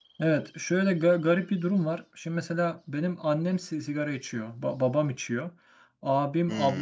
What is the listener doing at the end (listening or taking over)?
listening